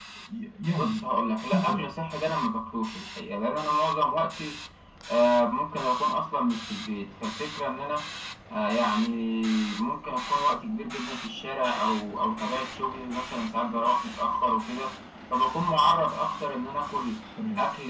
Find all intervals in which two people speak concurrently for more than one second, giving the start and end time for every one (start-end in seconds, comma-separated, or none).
none